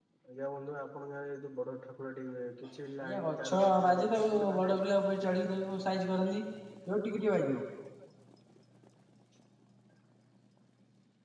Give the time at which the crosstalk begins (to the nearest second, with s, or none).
3 s